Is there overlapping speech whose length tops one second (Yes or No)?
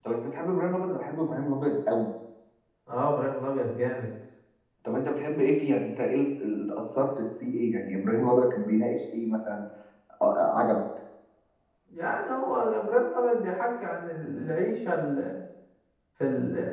No